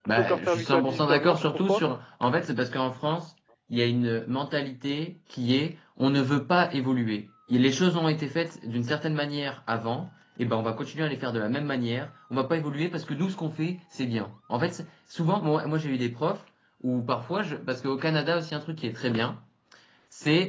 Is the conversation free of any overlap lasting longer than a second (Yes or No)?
No